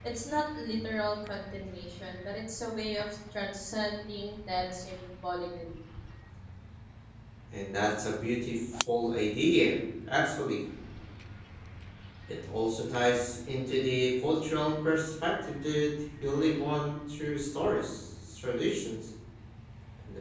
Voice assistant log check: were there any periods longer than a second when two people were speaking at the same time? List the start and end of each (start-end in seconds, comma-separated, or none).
none